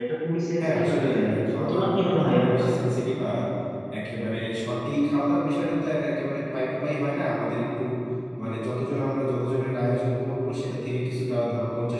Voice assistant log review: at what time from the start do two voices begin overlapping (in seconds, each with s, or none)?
0.6 s